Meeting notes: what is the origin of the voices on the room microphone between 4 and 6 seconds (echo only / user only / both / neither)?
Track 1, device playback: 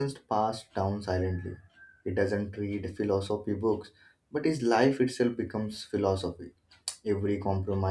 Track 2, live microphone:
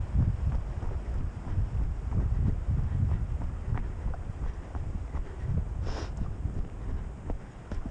neither